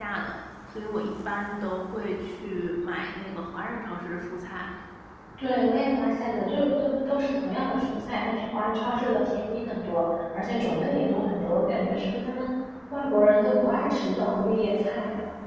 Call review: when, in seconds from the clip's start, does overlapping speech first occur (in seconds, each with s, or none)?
none